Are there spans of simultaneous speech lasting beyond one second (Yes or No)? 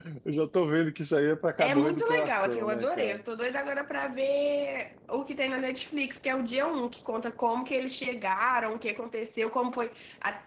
Yes